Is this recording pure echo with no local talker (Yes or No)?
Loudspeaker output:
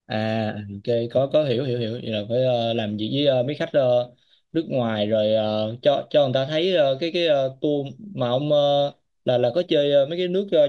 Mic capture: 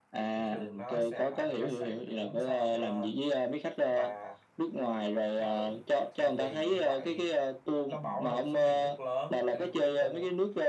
No